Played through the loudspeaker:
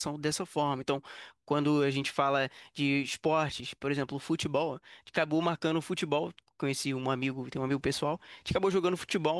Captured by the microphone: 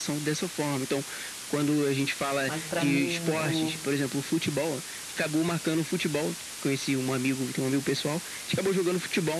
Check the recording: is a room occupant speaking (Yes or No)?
Yes